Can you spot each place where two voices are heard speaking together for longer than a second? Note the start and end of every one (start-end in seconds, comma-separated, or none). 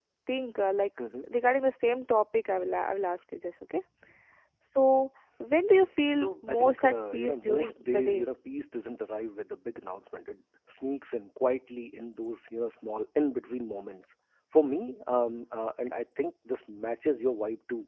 6.1-8.3